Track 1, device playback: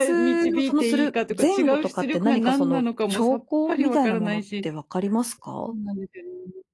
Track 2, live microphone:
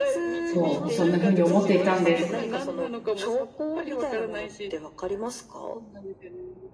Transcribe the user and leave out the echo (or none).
そう。そんな風に思っていたんです。